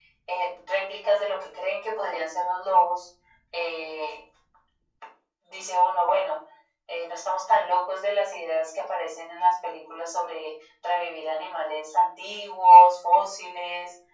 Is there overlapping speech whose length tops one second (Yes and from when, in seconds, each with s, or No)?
No